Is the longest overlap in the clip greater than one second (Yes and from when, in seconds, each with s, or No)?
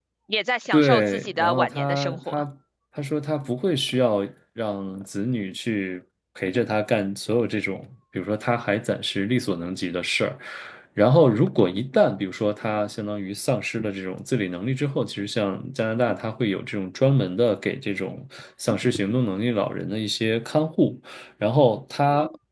Yes, from 0.7 s